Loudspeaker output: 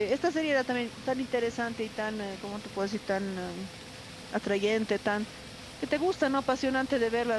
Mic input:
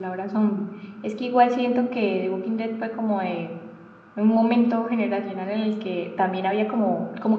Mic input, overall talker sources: user only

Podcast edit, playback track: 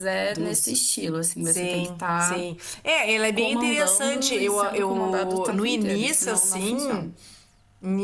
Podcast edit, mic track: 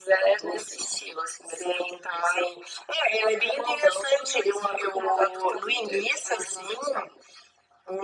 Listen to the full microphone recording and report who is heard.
echo only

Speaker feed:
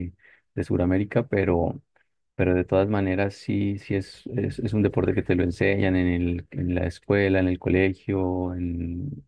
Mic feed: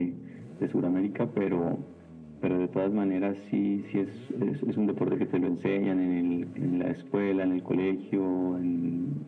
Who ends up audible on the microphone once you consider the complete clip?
echo only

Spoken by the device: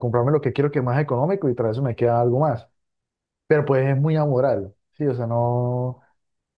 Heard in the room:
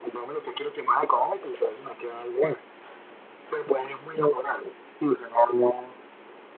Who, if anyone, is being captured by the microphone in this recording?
echo only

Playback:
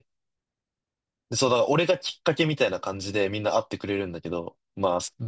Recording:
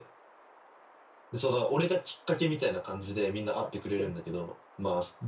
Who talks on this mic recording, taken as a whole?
both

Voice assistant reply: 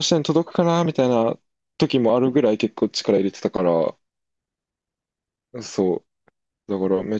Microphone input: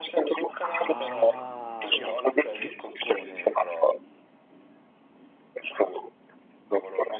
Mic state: both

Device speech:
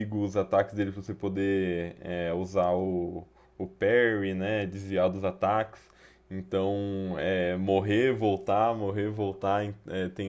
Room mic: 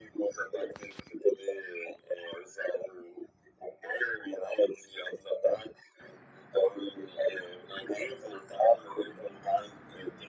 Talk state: echo only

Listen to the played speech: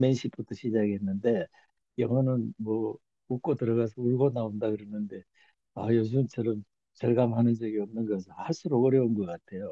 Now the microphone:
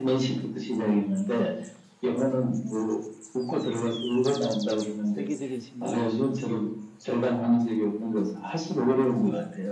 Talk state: both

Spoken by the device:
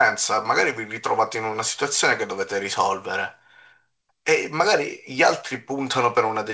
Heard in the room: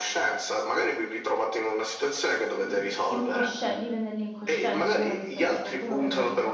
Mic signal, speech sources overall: both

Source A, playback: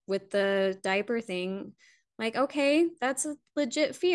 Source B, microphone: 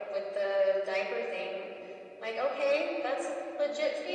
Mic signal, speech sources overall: echo only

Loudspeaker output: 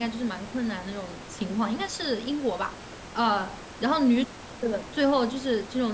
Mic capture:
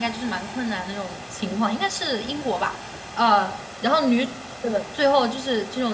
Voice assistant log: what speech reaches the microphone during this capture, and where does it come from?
echo only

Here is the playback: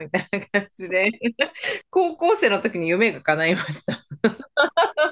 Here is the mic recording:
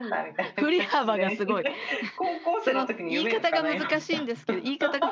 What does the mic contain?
both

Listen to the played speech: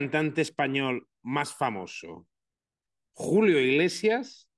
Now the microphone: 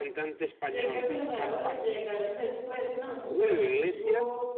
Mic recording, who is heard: both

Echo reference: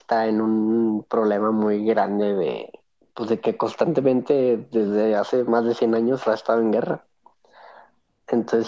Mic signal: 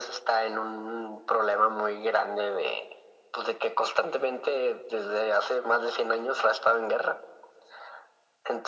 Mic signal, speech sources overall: echo only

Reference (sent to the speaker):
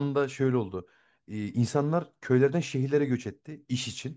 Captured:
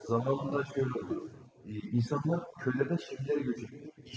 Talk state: both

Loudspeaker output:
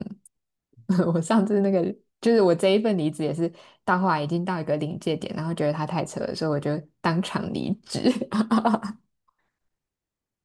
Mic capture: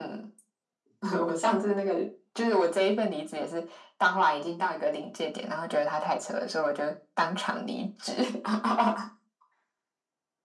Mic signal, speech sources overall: echo only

